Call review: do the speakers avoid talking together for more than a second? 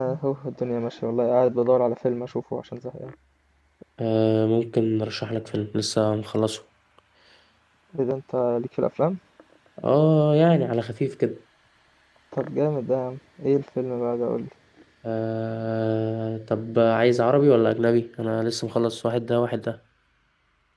Yes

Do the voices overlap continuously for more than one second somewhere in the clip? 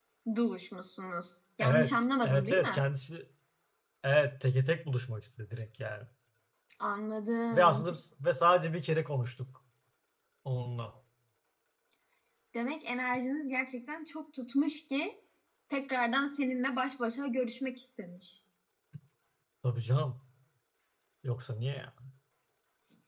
Yes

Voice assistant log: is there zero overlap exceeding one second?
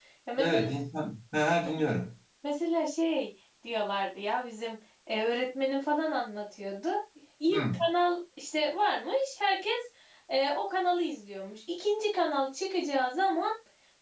Yes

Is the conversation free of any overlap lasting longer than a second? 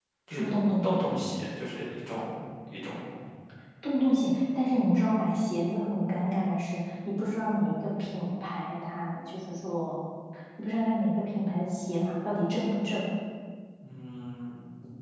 Yes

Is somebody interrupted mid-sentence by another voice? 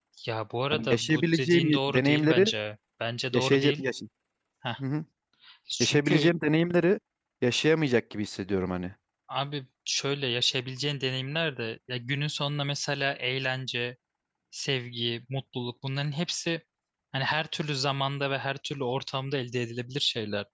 Yes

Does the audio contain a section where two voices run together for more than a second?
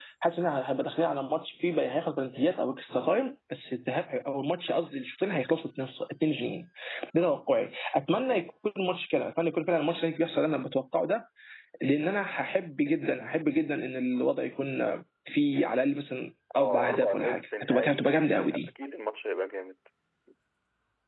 Yes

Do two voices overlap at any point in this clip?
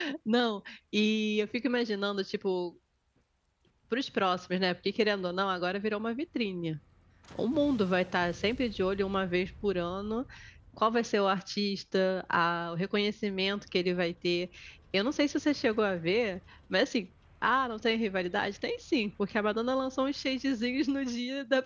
No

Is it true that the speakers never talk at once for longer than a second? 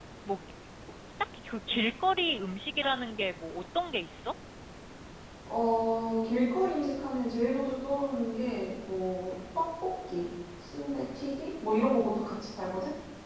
Yes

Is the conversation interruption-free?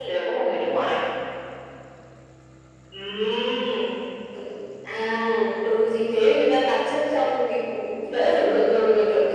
Yes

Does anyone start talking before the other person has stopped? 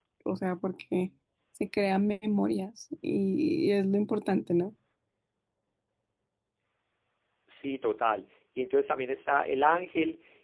No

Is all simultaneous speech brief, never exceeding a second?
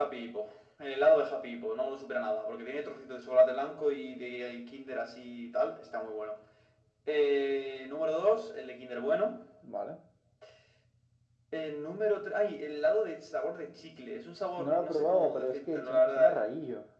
No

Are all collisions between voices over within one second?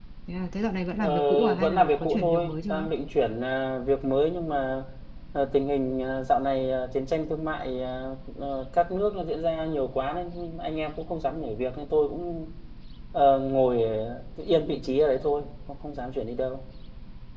No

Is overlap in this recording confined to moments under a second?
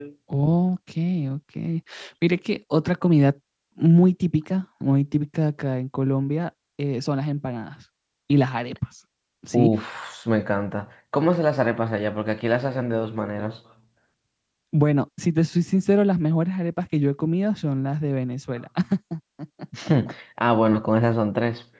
Yes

